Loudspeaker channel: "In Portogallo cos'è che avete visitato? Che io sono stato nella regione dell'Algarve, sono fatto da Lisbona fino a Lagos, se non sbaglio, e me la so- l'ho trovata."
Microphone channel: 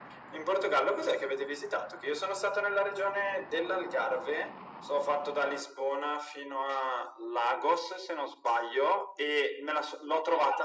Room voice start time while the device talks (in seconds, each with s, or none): none